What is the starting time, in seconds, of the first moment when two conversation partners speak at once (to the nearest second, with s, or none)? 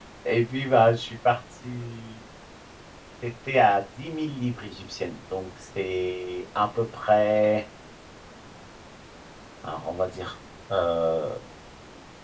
none